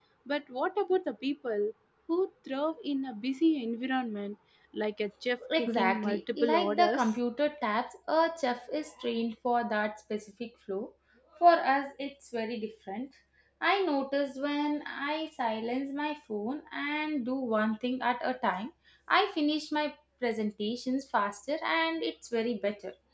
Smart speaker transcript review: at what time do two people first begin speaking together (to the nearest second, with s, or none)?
5 s